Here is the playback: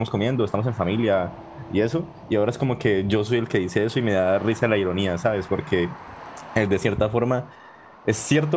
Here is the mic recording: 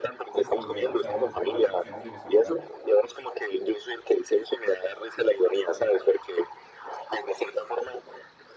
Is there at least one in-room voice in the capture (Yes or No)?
Yes